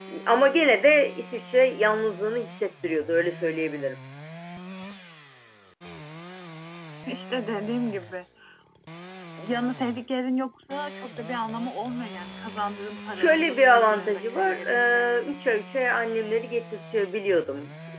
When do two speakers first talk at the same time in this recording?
13.1 s

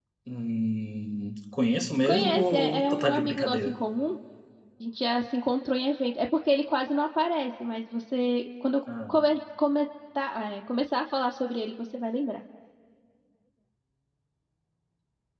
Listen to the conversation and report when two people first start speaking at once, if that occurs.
2.0 s

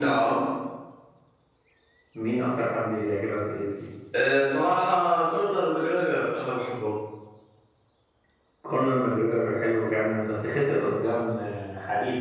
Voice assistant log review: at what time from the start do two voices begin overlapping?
none

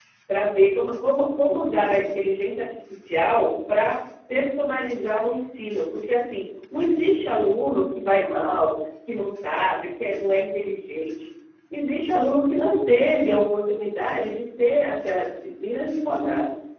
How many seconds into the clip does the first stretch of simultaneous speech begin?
none

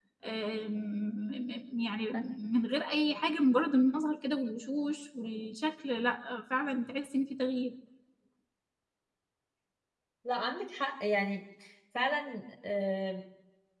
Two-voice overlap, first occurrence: none

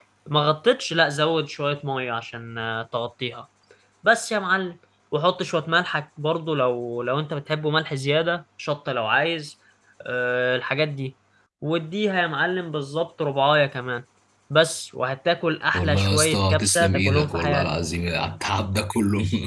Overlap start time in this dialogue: 15.7 s

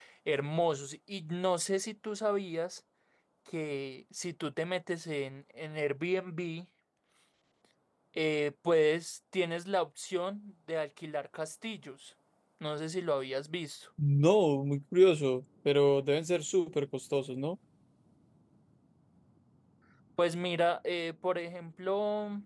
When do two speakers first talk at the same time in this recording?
none

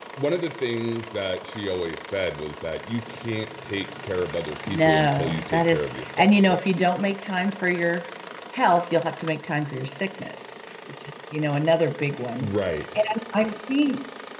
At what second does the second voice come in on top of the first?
4.7 s

